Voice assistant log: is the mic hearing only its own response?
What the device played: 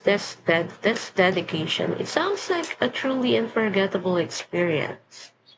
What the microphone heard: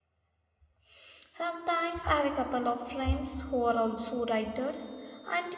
No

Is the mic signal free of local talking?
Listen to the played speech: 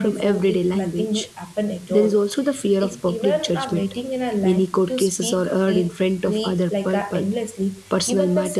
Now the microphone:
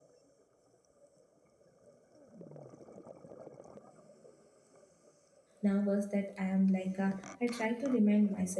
No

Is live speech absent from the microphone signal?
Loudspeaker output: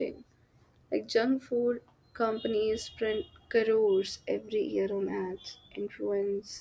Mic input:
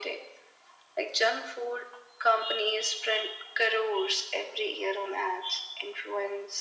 Yes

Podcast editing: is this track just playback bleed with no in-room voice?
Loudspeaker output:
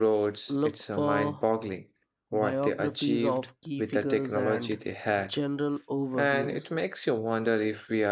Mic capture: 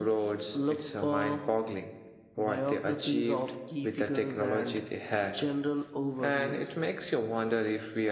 Yes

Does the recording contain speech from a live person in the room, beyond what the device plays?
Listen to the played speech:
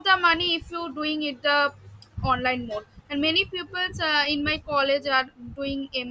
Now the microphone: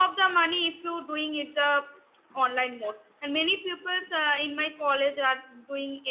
No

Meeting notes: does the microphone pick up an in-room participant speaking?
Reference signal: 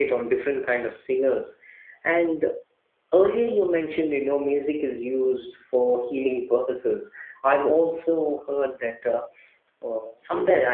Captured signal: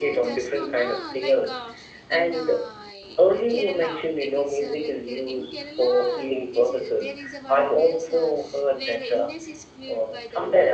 Yes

